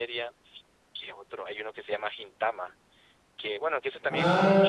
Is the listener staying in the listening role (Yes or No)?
No